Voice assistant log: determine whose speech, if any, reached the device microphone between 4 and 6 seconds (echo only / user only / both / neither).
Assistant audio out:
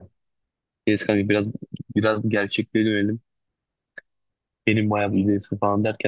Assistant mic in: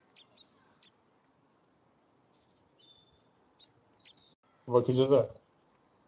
user only